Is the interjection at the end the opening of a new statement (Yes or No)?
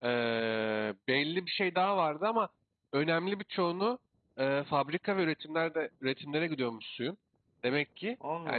No